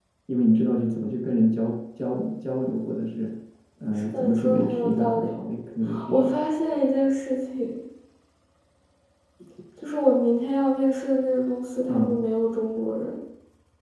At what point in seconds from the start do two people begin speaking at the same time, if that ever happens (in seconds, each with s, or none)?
3.9 s